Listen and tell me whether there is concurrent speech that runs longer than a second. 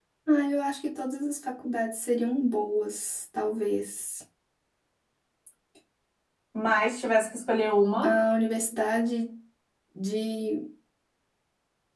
No

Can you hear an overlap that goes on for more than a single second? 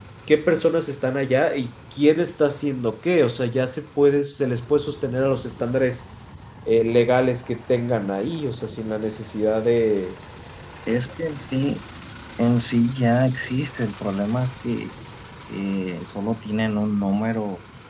No

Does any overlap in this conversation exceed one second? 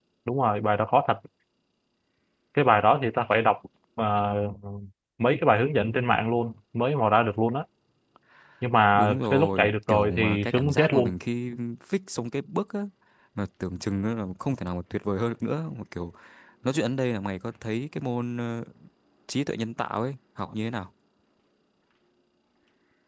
Yes, from 8.9 s

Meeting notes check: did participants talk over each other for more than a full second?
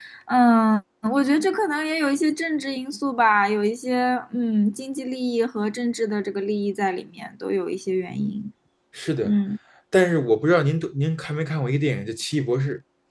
No

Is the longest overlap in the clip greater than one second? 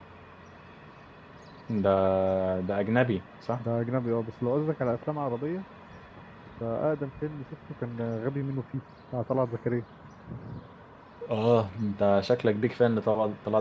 No

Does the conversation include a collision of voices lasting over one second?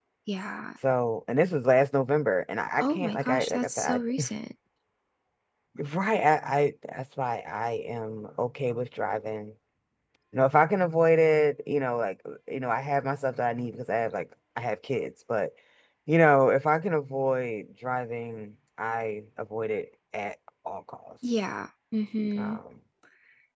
Yes, from 2.8 s

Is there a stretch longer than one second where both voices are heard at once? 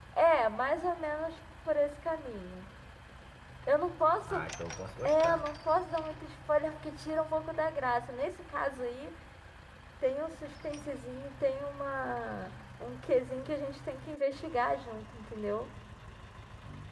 No

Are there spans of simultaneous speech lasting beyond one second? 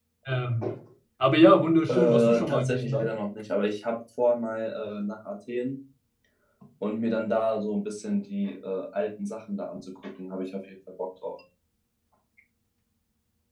Yes, from 1.9 s

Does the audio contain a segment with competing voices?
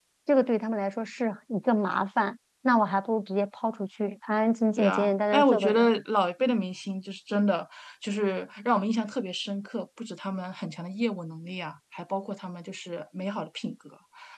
Yes, from 4.8 s

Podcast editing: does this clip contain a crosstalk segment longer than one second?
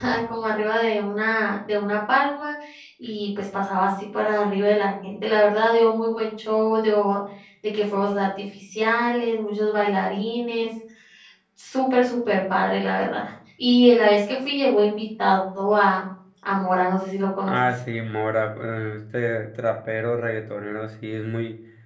No

